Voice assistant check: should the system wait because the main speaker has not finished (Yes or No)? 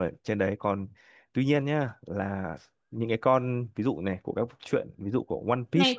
No